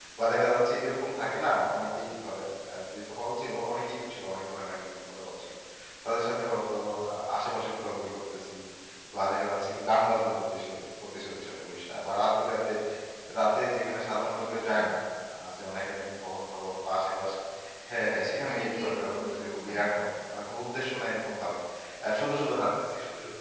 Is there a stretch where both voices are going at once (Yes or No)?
Yes